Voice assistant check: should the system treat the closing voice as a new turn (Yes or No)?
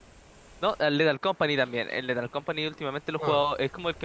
No